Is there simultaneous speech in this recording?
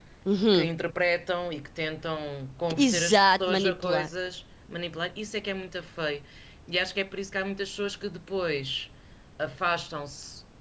Yes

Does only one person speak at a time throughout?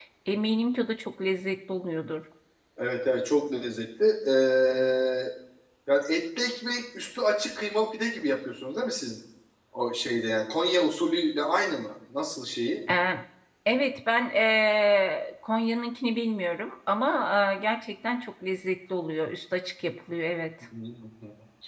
Yes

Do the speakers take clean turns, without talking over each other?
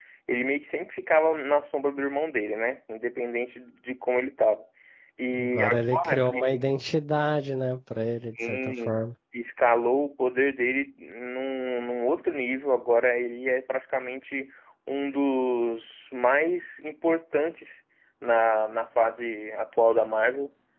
No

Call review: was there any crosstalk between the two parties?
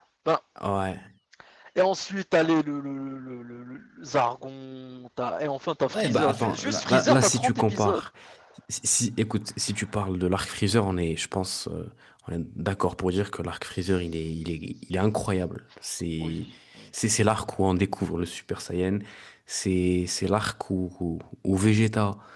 Yes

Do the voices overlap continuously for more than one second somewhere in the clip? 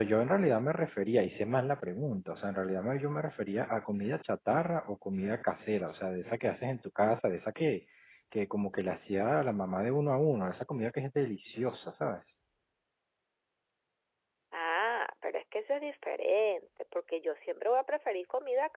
No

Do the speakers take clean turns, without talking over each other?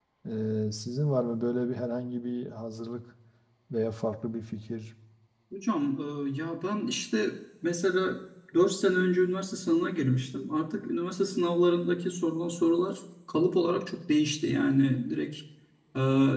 Yes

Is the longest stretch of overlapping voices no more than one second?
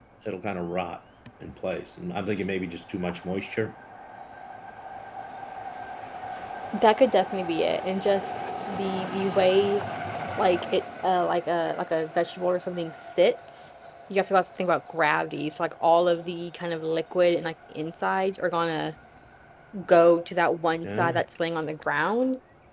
Yes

